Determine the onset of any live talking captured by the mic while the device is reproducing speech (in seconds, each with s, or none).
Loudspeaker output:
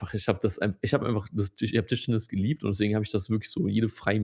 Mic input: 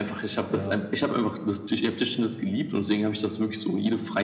0.5 s